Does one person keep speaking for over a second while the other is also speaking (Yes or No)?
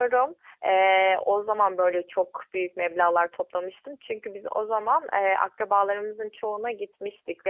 No